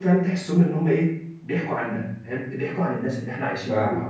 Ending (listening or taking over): taking over